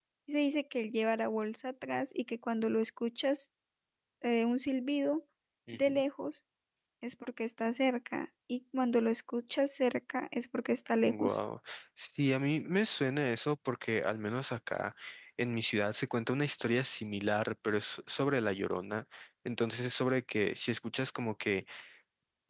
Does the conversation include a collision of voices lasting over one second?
No

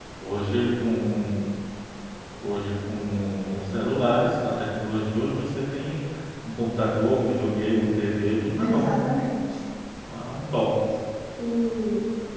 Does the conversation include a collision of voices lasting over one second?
No

